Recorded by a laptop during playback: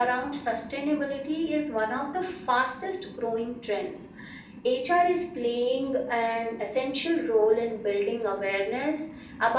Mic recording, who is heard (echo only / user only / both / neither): echo only